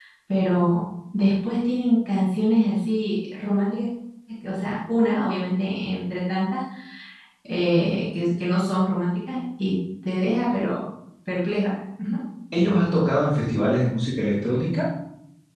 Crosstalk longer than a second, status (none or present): none